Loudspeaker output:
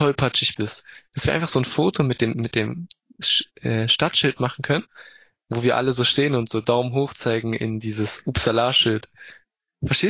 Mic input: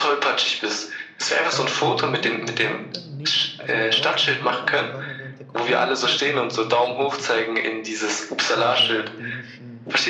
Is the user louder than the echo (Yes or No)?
No